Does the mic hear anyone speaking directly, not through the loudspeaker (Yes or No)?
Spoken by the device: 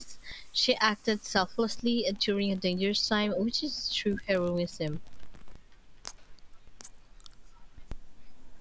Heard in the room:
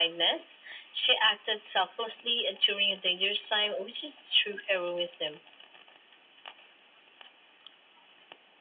No